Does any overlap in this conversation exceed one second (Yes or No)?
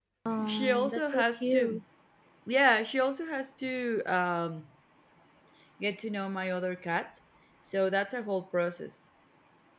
Yes